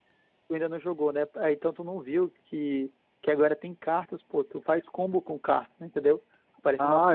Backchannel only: Yes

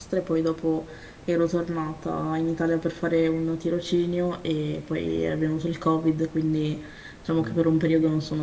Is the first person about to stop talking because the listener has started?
No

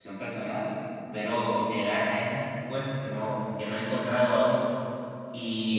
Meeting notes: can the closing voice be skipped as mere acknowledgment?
Yes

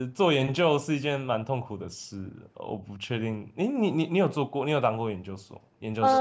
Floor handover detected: Yes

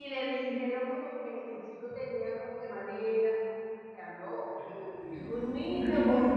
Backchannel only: No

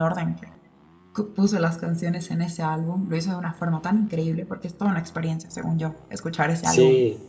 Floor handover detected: Yes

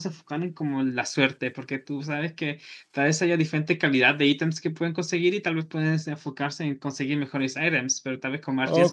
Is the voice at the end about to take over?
Yes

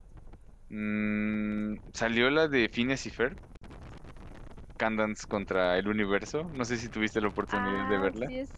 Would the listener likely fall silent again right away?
No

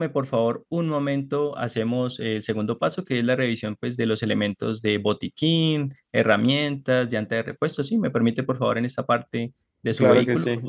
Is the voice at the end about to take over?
Yes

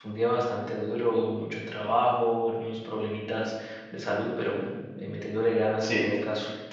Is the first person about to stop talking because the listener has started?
Yes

